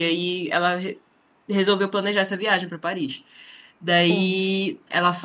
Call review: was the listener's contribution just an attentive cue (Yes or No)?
Yes